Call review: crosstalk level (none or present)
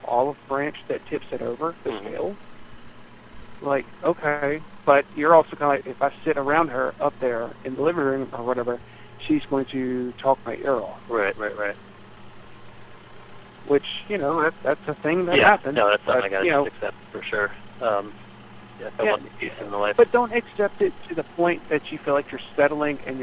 present